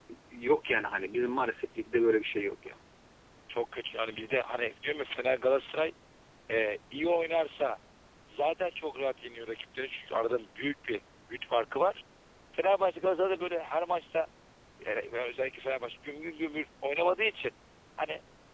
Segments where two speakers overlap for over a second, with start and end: none

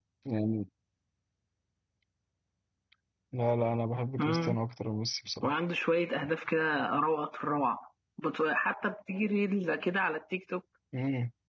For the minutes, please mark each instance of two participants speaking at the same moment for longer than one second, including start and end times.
none

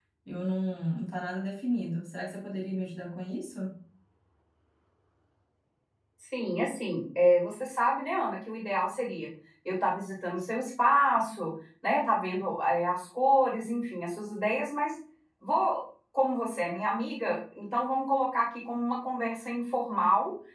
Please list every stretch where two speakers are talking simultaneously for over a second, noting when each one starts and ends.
none

